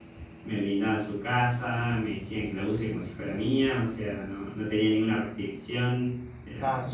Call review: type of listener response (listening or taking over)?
taking over